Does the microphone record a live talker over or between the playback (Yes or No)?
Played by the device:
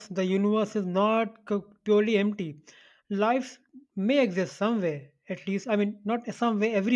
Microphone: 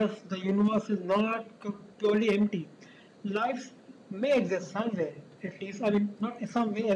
No